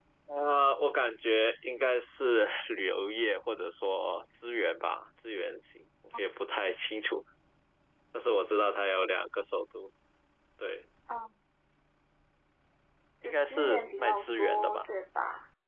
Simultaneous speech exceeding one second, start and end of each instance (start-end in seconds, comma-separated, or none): 13.2-14.8